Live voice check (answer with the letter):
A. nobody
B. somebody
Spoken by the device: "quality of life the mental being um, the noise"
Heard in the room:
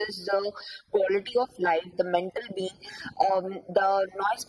A